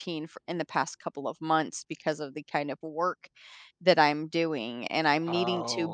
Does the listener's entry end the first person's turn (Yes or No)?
No